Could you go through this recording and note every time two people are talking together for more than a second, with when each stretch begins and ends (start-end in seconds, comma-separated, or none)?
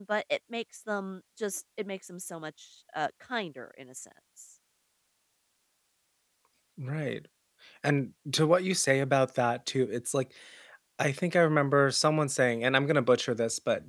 none